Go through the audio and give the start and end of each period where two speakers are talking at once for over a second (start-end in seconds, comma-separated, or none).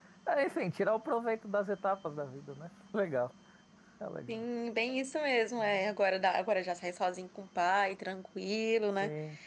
none